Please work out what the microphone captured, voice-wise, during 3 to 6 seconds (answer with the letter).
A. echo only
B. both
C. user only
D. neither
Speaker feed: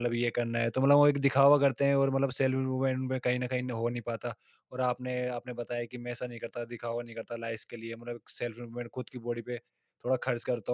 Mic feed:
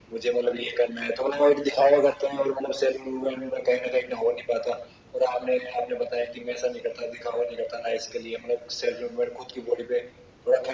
A